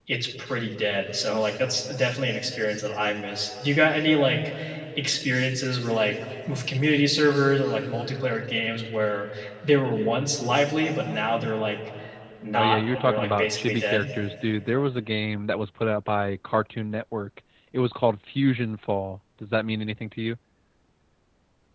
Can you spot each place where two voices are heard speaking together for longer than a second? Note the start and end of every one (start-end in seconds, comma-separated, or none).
12.5-14.1